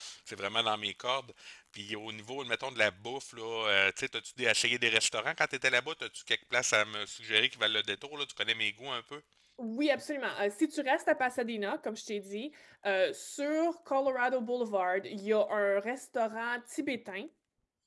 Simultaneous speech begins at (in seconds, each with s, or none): none